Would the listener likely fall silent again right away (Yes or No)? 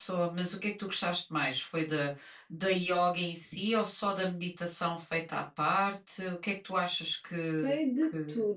No